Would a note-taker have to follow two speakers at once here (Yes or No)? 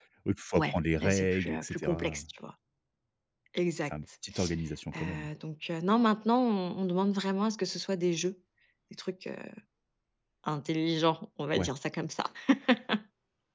Yes